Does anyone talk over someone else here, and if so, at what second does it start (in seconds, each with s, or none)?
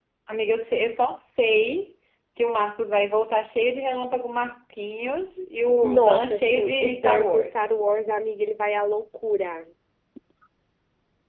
5.8 s